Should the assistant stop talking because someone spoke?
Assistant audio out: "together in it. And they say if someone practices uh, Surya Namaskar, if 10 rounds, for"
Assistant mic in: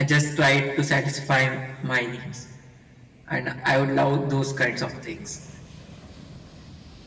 Yes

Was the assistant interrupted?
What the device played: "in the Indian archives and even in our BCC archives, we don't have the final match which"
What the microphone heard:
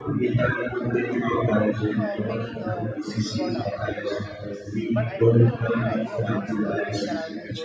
Yes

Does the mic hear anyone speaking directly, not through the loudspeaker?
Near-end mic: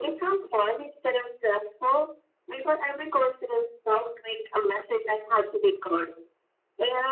No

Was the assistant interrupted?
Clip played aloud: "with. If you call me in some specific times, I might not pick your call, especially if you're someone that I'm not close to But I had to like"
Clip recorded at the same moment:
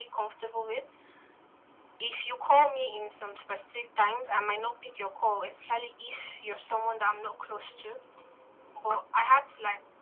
No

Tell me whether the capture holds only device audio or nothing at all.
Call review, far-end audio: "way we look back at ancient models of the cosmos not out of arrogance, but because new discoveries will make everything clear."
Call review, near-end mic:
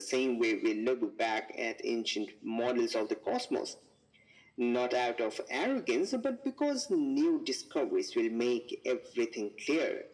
Yes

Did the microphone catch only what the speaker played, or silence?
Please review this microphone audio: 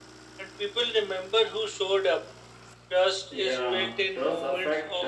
No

